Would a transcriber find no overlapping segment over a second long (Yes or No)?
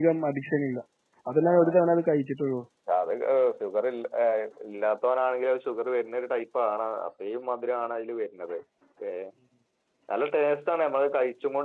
Yes